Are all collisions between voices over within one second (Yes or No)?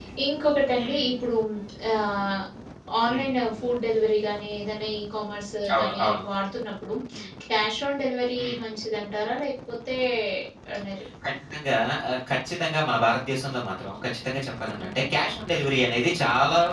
Yes